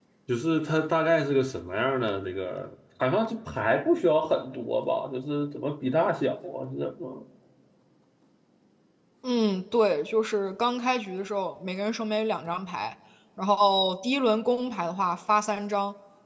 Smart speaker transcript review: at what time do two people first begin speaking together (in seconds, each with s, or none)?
none